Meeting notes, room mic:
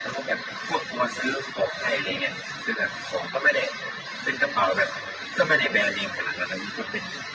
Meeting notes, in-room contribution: none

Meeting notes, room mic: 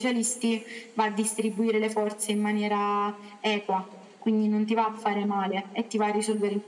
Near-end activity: none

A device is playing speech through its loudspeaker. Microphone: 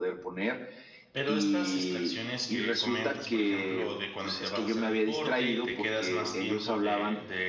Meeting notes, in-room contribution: present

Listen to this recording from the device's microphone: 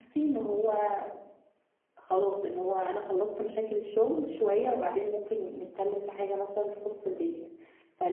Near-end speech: present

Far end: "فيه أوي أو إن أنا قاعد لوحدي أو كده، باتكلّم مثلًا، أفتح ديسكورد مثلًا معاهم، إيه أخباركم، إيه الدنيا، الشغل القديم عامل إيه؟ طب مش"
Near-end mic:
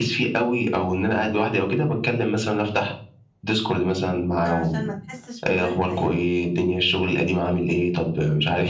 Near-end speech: present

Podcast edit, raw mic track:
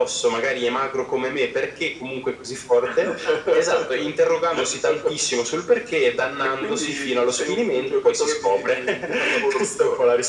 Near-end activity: none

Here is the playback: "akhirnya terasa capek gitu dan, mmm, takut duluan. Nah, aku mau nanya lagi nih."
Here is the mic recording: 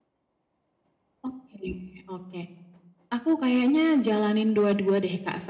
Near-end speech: present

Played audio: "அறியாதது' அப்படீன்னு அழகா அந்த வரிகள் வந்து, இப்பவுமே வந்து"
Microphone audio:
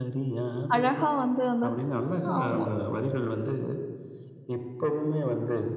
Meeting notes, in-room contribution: present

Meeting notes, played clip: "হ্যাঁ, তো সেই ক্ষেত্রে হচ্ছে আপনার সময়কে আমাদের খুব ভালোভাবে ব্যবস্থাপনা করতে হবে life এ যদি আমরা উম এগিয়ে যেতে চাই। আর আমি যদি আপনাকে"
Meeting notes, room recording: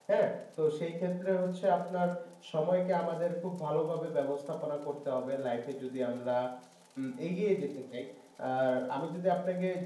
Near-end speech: none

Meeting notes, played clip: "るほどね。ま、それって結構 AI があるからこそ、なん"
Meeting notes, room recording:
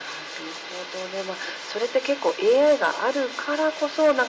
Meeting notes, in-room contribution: none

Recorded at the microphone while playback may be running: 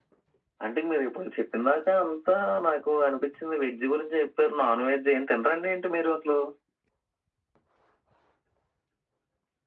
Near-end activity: none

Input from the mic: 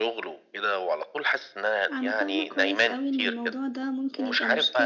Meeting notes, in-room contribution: present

